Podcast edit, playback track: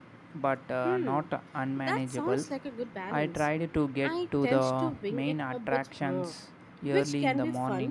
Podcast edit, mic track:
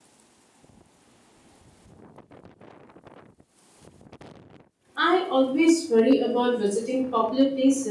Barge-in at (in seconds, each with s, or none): 5.0 s